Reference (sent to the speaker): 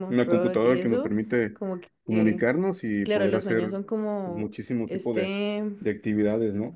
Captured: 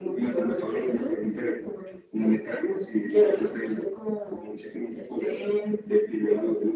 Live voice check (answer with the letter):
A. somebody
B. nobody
B